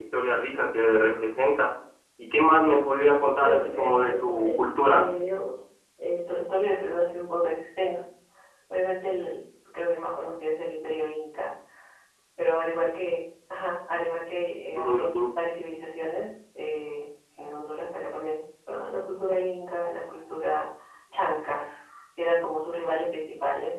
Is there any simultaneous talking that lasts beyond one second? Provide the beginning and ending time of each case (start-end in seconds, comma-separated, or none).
3.4-5.0